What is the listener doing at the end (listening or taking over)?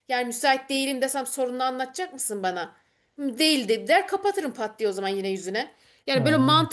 listening